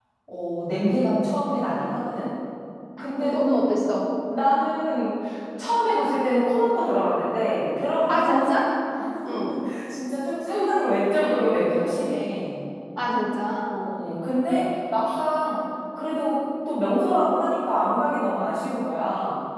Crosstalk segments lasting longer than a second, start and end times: none

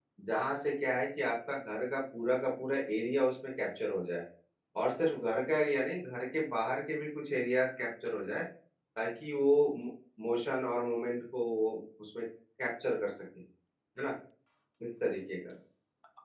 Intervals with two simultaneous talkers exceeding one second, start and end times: none

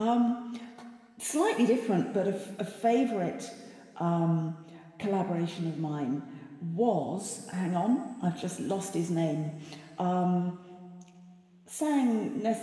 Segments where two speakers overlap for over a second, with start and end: none

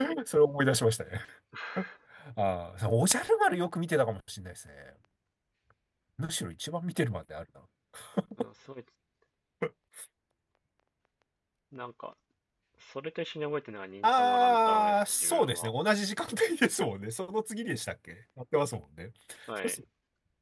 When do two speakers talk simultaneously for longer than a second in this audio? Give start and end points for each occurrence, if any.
14.0-15.7

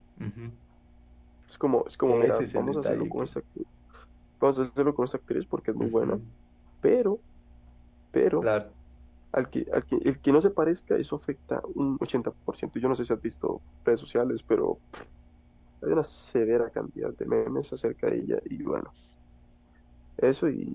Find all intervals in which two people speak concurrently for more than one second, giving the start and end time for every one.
2.0-3.3

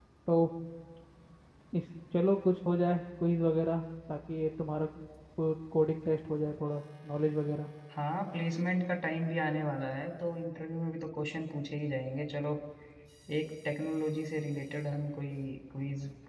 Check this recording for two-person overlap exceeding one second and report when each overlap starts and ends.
none

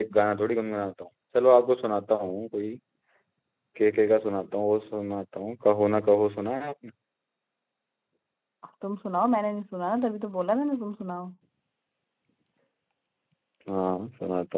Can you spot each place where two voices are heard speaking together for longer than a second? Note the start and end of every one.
none

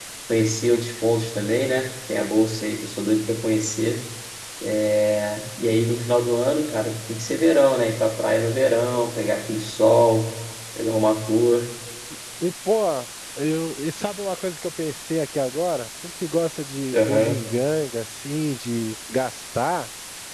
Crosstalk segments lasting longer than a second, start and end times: none

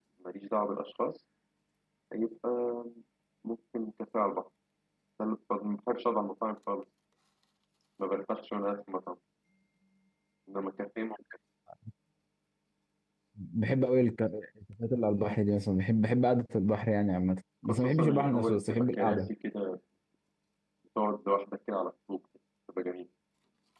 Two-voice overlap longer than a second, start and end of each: 17.6-19.3

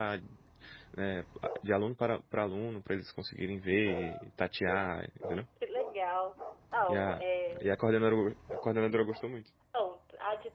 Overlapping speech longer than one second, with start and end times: none

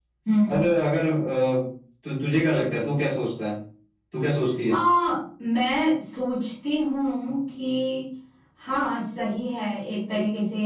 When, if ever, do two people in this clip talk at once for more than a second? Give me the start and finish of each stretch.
none

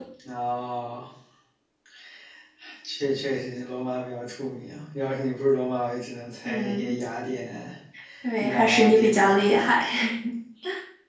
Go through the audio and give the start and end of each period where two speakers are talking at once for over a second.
8.4-9.6

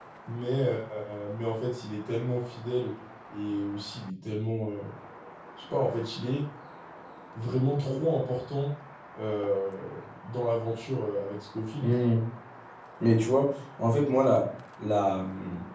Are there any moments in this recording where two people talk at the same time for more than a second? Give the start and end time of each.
none

